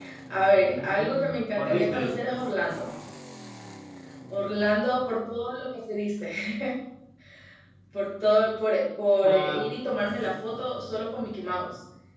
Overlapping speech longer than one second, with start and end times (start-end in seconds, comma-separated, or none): 0.5-2.2